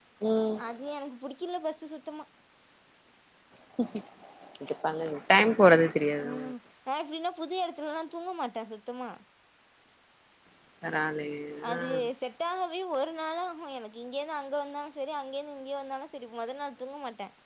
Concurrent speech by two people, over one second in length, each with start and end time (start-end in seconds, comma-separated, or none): none